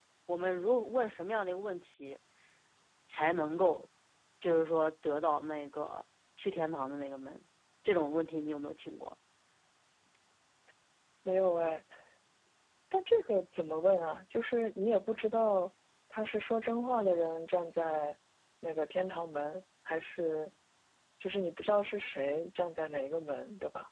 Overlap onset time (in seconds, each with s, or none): none